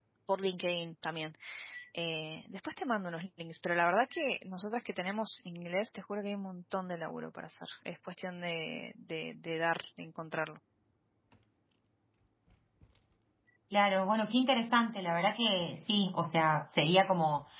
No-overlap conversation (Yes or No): Yes